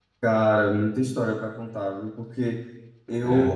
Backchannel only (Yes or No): Yes